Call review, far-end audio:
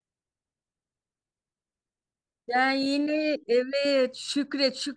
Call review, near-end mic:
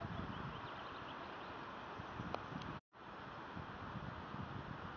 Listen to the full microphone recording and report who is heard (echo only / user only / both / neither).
neither